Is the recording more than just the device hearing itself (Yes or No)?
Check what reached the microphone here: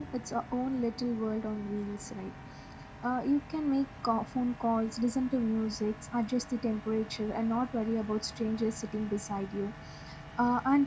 Yes